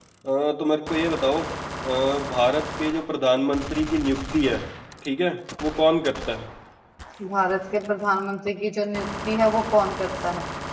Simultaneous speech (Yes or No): No